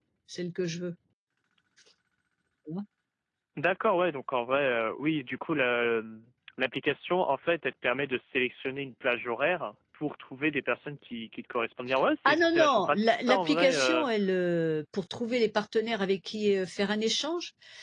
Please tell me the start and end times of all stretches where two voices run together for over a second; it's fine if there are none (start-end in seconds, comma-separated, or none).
12.2-14.0